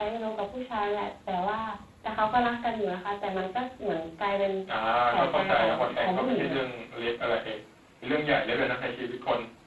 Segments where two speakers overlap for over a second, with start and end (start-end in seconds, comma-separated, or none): 5.2-6.6